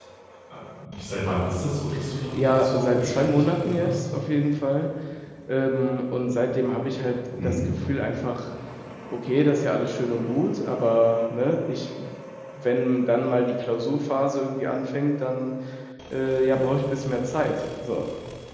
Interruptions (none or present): present